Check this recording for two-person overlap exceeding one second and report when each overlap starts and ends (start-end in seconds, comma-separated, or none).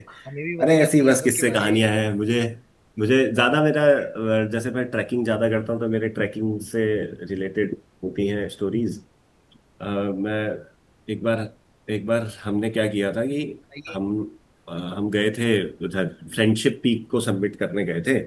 0.6-1.9